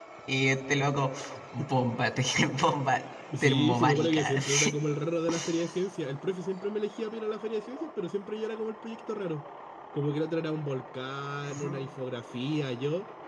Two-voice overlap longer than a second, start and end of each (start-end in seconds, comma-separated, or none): 3.4-4.7